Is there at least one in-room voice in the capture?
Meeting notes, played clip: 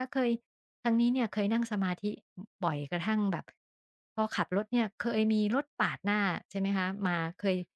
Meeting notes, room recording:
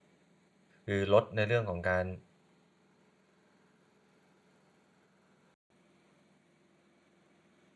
Yes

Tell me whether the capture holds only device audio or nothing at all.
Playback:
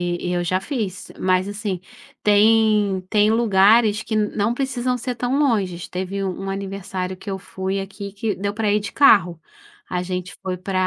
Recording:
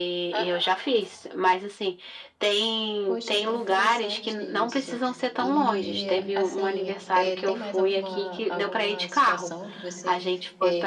No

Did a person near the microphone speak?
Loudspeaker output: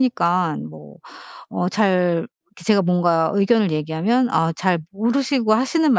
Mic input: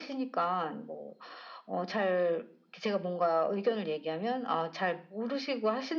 No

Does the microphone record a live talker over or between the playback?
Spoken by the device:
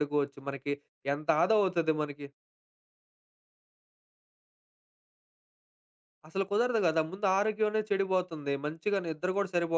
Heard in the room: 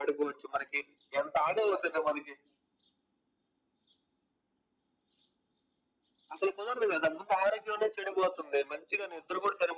No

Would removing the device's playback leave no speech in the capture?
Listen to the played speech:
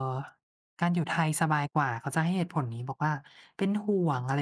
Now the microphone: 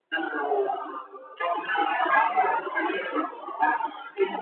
No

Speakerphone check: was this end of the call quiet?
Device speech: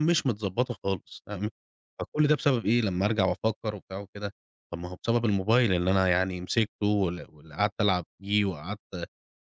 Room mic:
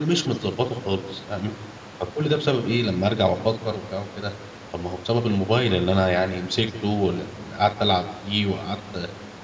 Yes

